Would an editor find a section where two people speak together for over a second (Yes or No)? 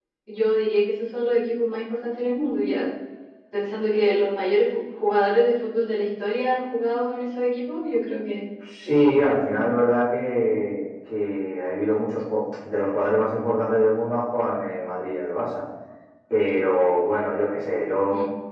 No